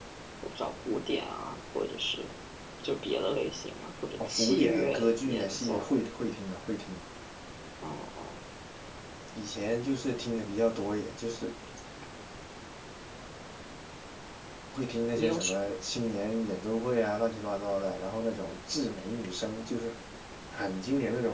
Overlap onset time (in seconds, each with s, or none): 4.2 s